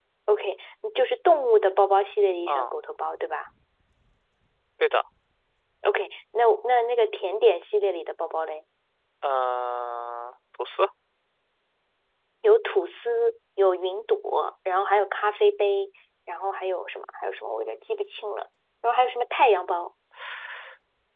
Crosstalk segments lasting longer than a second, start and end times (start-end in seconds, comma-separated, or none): none